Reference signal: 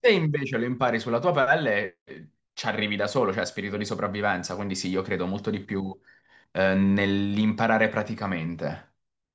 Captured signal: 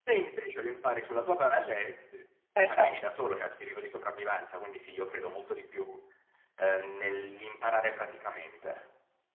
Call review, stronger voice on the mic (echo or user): user